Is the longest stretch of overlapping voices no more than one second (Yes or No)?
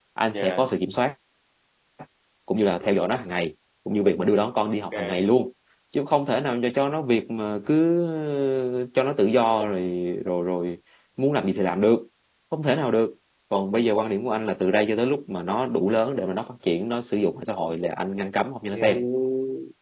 Yes